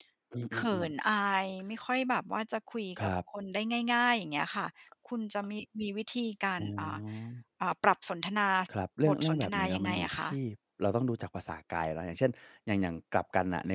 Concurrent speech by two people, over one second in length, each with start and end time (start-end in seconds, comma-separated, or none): 9.1-10.3